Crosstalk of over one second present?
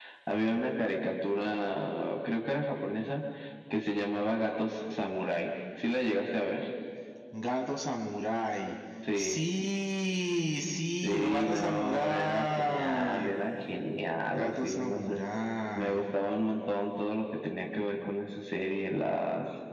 Yes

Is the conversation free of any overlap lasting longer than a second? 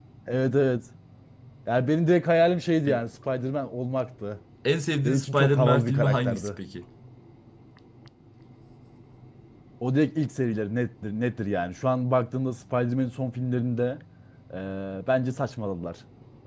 No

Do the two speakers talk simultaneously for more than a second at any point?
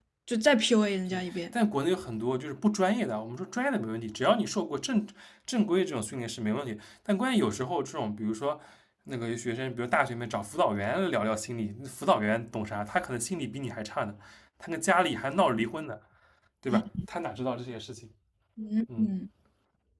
No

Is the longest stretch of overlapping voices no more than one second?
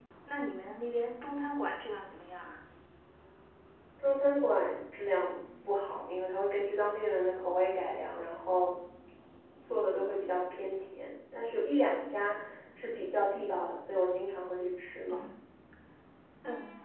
Yes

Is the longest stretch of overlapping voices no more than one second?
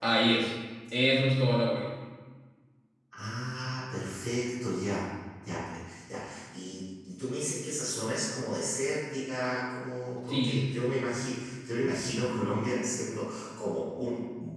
Yes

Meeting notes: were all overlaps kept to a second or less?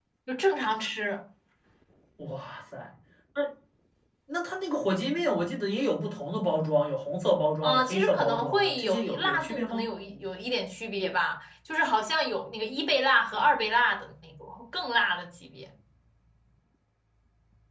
No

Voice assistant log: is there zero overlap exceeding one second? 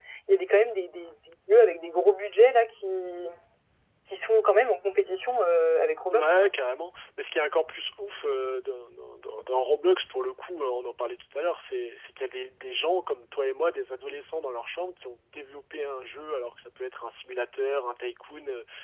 Yes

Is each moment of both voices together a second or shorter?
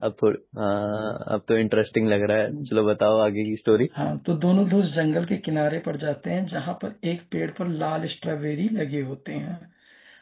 Yes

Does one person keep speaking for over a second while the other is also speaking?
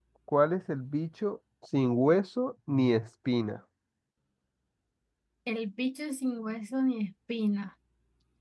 No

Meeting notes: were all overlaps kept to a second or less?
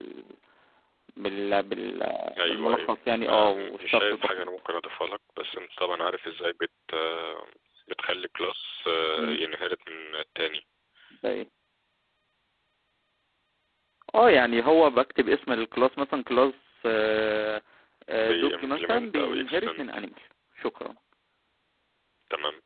No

